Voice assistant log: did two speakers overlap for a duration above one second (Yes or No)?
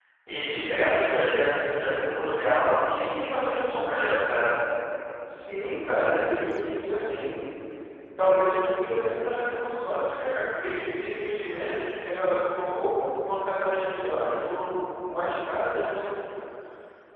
No